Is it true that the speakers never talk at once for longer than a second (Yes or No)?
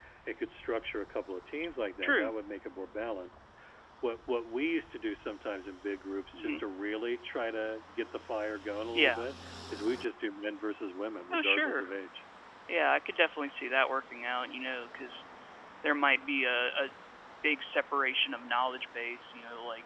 Yes